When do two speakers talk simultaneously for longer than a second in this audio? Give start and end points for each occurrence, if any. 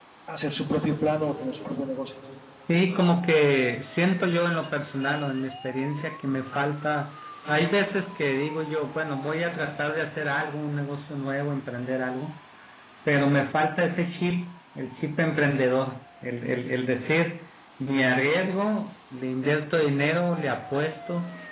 none

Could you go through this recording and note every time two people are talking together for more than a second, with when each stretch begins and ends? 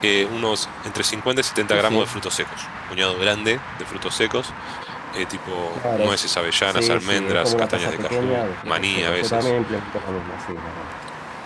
6.7-9.5

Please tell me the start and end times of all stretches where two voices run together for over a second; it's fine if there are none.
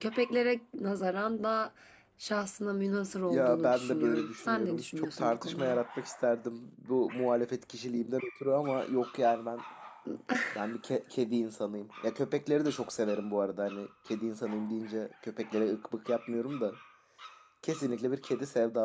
3.3-5.8

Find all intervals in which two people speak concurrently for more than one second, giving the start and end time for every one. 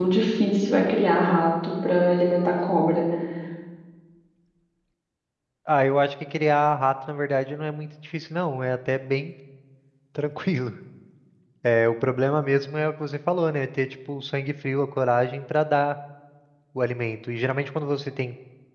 none

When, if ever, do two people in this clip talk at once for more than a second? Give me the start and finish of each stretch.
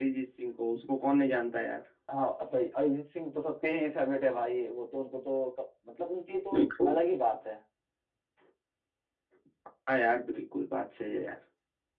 none

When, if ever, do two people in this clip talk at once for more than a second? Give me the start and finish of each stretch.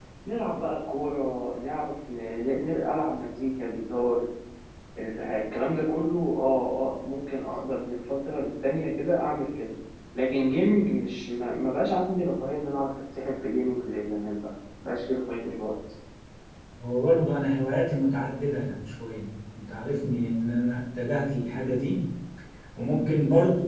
none

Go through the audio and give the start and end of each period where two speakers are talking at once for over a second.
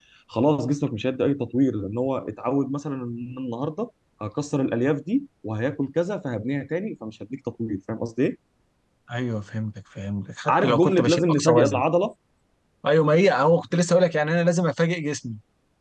10.5-11.8

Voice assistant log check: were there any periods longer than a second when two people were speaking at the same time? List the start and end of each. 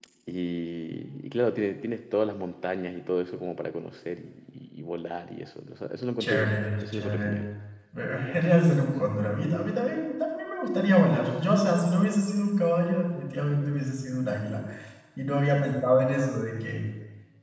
6.2-7.4

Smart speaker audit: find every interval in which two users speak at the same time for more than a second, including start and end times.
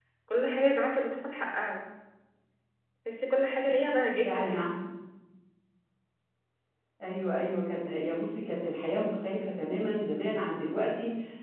none

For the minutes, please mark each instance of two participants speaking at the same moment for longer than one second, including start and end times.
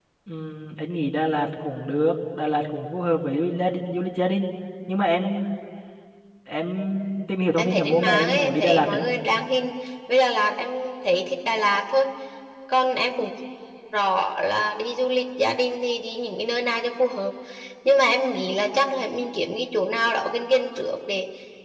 7.6-9.0

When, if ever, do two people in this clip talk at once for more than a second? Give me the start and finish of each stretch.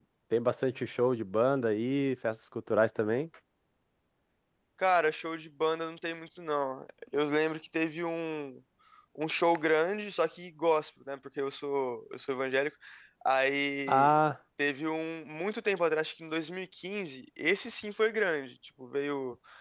none

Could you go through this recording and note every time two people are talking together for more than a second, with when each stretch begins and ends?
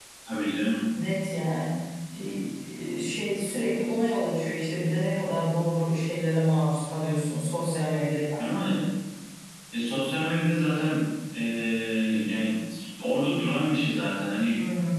none

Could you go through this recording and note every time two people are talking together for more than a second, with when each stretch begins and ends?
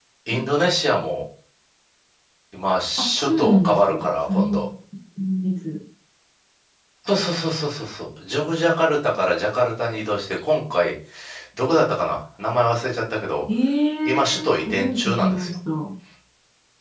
3.0-4.7, 14.1-15.6

